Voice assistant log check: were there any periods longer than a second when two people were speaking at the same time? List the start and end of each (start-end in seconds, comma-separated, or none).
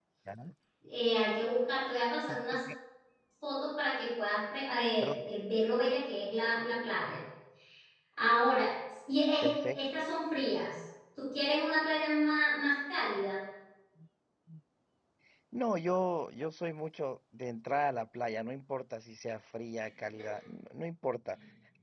none